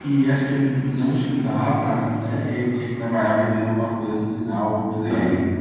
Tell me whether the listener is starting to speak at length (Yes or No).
No